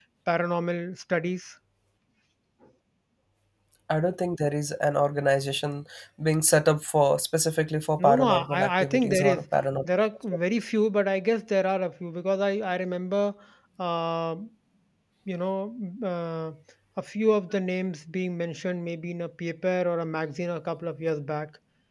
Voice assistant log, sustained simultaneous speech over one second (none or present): present